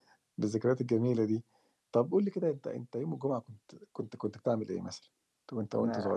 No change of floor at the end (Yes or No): No